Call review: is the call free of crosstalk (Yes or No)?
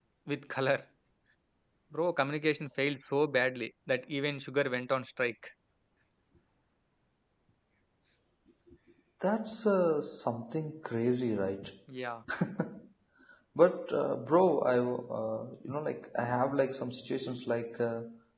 Yes